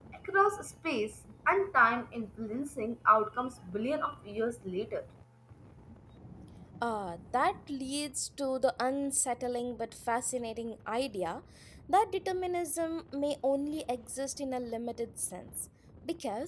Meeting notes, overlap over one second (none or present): none